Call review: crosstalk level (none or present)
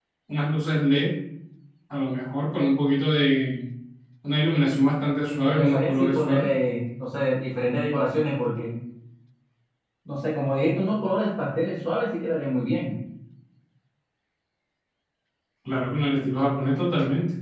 present